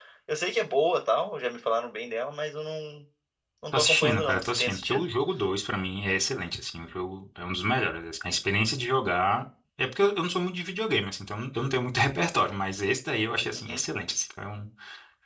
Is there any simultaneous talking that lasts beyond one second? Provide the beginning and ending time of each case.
3.7-5.0

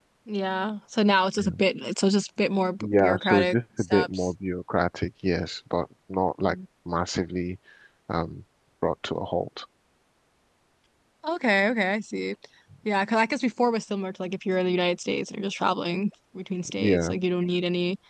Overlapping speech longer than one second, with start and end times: 2.8-4.3

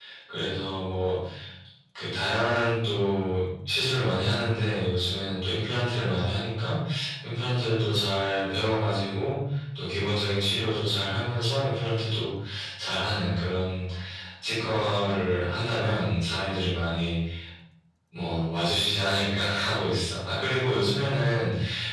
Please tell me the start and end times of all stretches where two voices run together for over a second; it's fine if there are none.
none

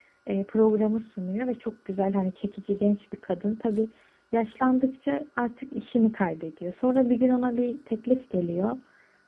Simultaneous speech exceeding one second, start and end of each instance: none

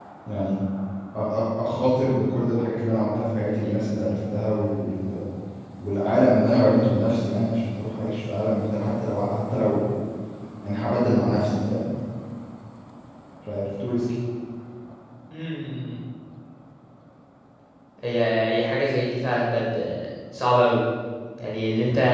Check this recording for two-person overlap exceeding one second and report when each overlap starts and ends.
none

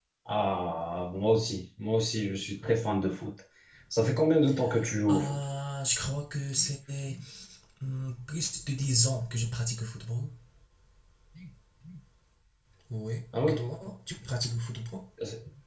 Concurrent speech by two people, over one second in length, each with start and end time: none

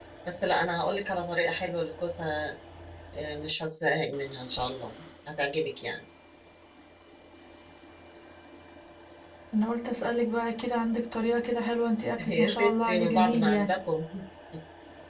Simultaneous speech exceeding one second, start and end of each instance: 12.3-13.7

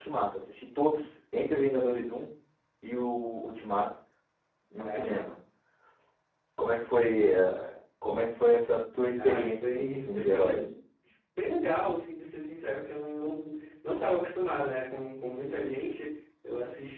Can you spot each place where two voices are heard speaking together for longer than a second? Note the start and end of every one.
9.1-10.6

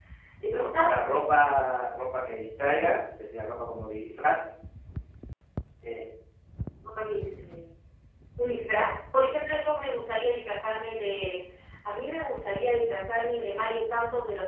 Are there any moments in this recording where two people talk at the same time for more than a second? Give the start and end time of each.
none

